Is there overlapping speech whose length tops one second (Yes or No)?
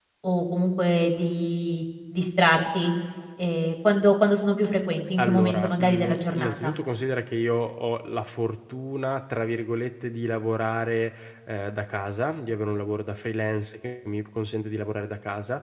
Yes